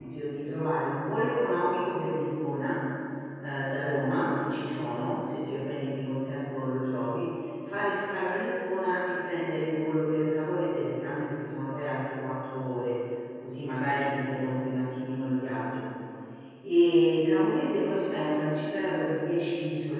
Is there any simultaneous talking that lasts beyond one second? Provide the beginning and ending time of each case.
none

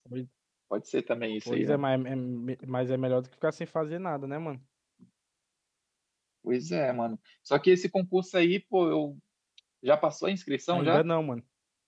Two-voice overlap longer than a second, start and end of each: none

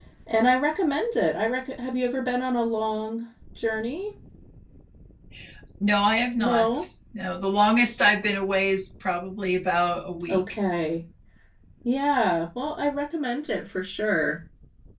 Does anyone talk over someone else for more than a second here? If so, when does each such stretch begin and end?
none

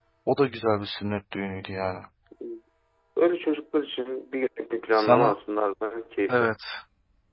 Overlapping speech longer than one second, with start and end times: none

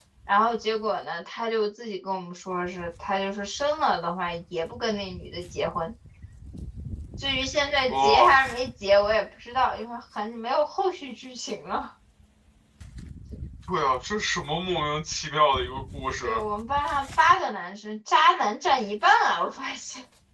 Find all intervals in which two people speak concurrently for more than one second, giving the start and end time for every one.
none

